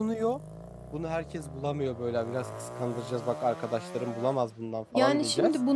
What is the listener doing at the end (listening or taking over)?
taking over